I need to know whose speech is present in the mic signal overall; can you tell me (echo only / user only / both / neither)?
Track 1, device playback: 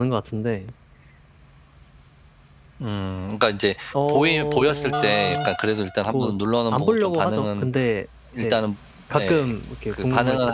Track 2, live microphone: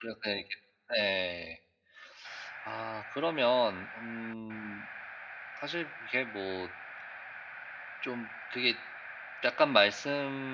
user only